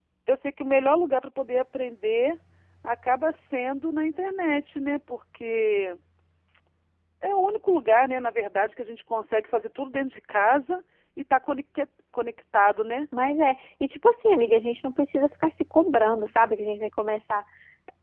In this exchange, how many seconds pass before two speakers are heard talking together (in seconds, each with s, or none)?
none